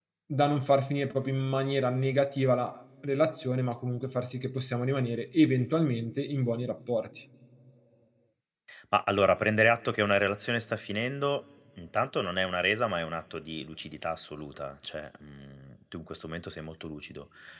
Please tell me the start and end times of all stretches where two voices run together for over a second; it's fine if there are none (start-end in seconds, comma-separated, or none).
none